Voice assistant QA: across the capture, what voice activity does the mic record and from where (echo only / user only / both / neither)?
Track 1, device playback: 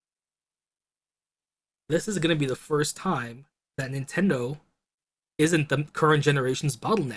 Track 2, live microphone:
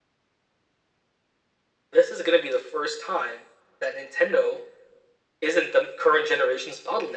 echo only